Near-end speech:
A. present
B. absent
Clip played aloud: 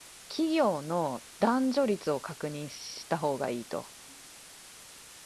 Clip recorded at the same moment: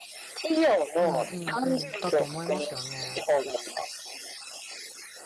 A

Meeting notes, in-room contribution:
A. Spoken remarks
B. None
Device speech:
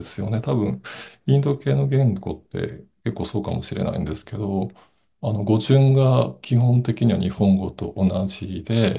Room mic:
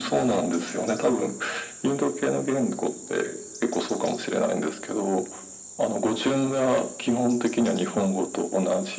B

